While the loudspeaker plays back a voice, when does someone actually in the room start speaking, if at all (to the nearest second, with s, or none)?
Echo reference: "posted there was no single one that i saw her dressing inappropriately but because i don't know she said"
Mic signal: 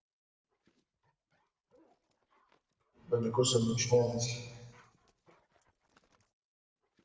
3 s